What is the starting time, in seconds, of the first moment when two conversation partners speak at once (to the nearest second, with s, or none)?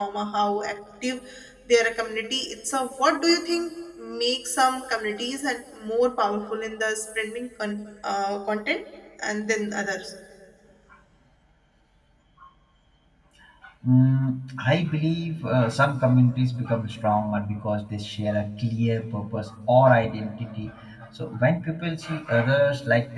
none